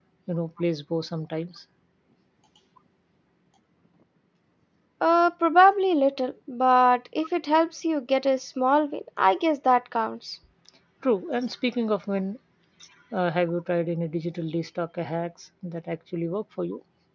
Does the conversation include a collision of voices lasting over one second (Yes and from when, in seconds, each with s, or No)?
No